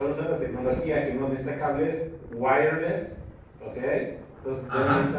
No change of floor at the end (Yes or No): Yes